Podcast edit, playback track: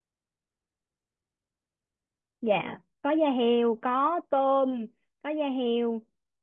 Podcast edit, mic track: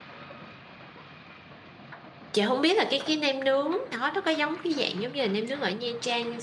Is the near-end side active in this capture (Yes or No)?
Yes